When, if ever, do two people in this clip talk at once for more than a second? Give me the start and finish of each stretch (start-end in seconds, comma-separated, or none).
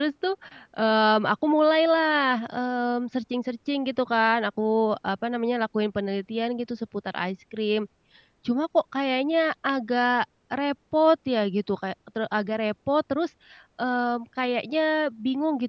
none